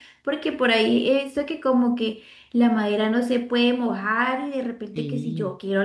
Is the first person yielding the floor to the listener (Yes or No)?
No